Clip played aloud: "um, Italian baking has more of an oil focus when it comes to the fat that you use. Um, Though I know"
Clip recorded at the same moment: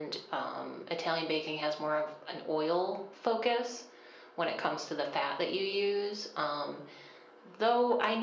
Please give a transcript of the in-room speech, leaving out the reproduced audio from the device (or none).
none